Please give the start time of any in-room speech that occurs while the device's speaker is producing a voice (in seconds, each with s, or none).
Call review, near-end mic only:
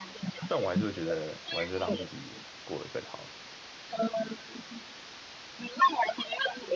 0.5 s